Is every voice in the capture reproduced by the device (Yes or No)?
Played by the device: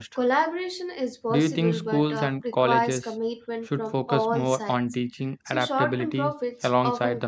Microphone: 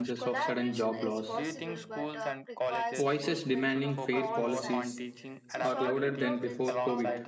No